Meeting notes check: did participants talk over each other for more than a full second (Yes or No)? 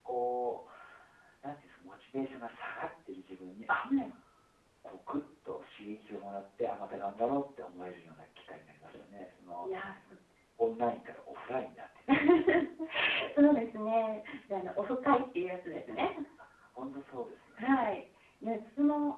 No